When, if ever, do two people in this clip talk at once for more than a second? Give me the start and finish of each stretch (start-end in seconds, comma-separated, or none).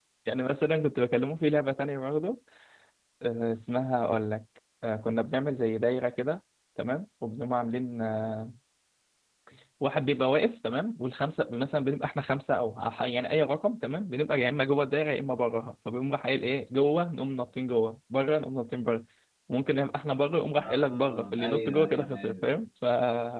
20.6-22.4